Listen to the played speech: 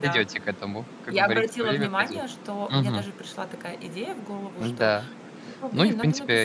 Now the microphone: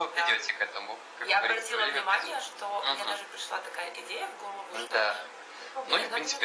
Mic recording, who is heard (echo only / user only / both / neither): echo only